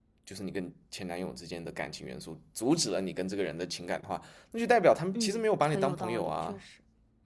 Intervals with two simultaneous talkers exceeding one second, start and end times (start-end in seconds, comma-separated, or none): 5.2-6.6